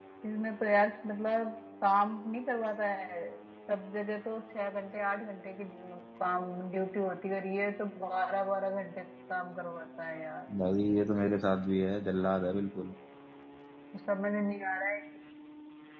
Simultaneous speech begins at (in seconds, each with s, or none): none